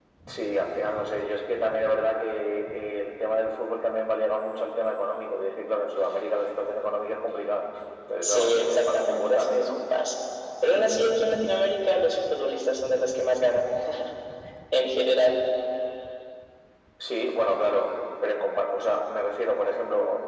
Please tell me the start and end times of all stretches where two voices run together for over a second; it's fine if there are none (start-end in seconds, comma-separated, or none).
8.2-9.8